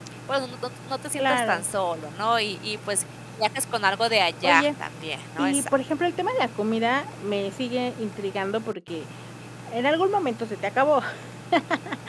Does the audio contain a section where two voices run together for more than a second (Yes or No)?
No